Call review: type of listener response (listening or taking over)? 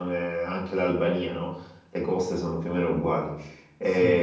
taking over